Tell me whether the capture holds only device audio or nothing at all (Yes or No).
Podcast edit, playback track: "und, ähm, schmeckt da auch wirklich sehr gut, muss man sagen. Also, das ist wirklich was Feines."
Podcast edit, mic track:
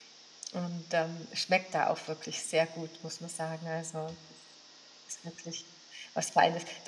Yes